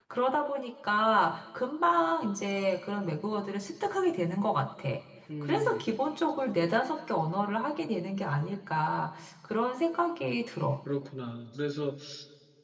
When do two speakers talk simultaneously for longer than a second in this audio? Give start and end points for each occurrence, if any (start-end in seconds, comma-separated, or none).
none